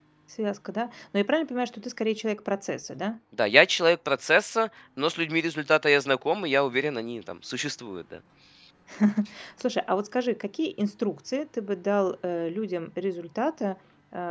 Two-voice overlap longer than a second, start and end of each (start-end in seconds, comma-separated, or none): none